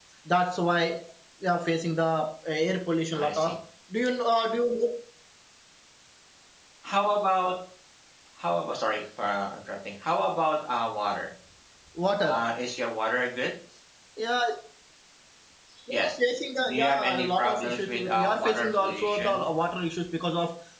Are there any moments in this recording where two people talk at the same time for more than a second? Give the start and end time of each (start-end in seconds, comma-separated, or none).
16.6-19.5